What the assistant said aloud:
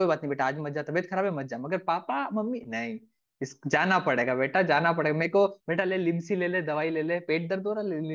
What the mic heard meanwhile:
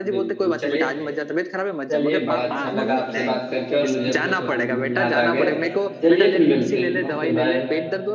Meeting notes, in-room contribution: present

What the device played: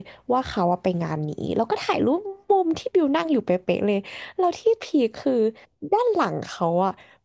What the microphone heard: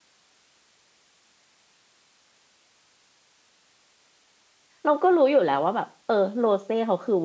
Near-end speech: present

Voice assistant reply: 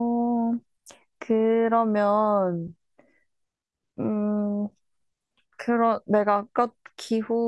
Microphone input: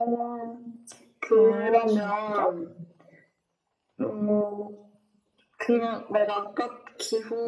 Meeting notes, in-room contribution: present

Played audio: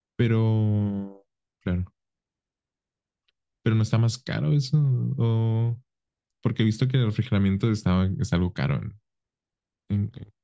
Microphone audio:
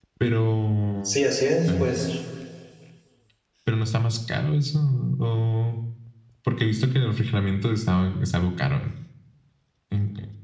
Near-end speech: present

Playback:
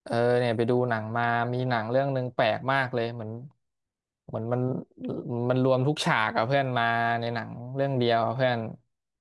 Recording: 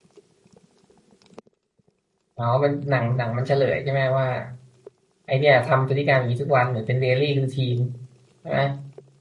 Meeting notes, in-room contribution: present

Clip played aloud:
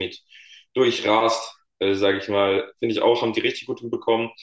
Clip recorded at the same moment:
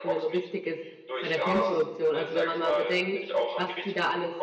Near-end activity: present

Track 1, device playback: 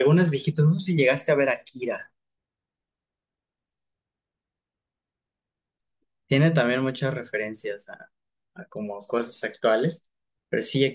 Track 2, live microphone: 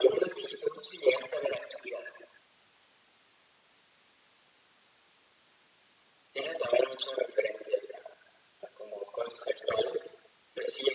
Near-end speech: none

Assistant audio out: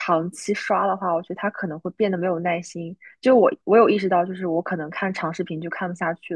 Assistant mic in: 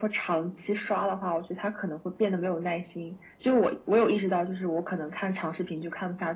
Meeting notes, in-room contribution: none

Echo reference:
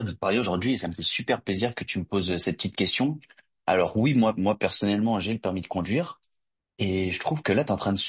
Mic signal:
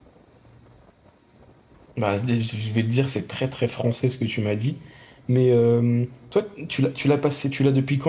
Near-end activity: present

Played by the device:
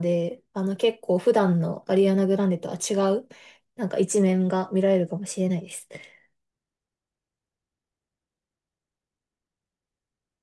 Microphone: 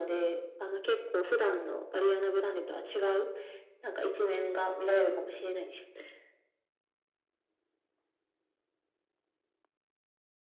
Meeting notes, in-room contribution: none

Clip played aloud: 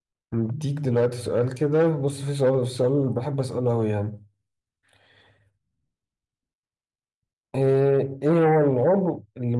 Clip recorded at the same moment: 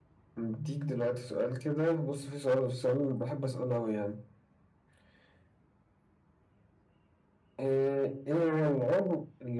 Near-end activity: none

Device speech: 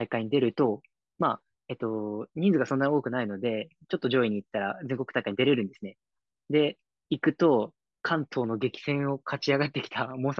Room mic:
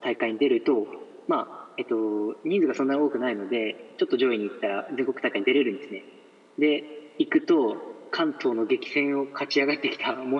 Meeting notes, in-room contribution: none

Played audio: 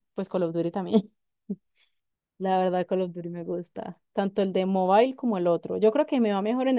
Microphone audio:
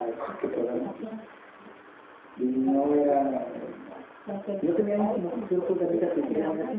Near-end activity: present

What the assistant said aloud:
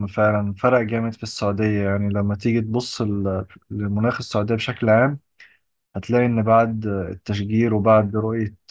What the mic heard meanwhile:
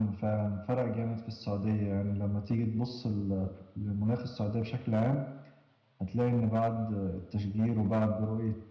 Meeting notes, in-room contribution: none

